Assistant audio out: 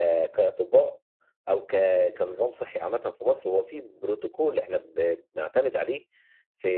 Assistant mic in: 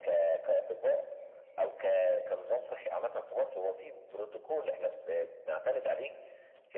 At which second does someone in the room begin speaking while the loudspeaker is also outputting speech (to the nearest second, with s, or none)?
none